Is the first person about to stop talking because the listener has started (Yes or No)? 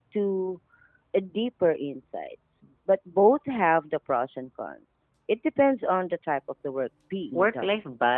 Yes